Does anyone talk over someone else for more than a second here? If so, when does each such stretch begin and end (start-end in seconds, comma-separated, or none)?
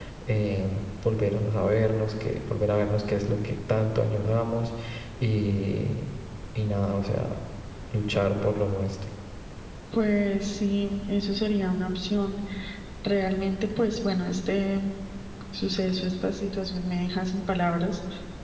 none